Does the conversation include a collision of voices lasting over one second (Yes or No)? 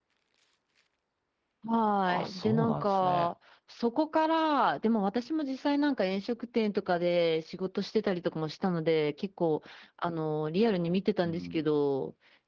Yes